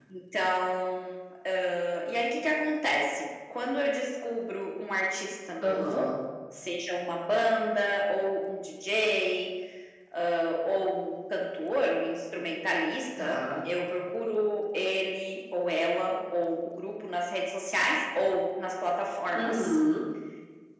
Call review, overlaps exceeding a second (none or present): none